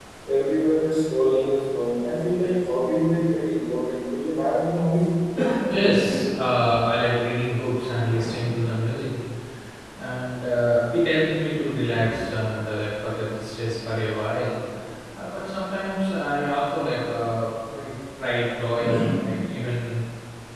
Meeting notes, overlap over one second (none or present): none